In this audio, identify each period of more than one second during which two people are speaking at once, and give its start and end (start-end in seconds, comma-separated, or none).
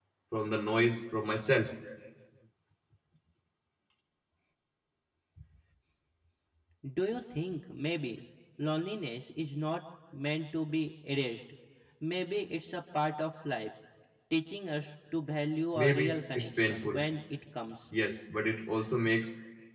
15.7-17.0